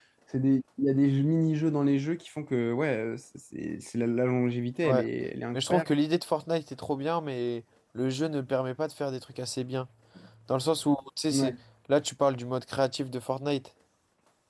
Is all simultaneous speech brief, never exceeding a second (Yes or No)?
Yes